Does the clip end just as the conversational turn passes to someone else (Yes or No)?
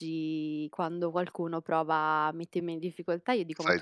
No